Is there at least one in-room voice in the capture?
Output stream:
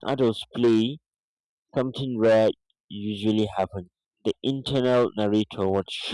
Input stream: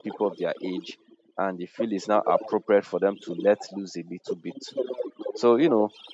Yes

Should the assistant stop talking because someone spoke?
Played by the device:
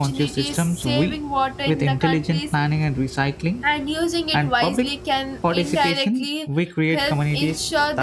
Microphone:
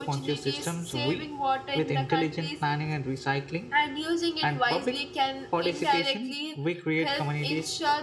No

